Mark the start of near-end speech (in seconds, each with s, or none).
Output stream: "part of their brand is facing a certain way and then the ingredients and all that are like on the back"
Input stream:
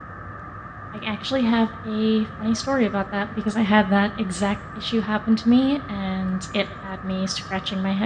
0.9 s